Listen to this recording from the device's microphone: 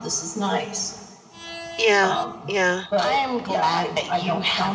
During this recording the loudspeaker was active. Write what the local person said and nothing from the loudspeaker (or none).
Yeah, yeah.